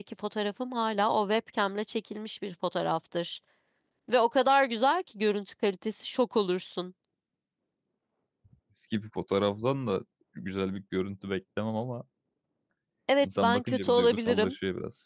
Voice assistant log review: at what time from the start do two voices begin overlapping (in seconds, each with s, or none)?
13.2 s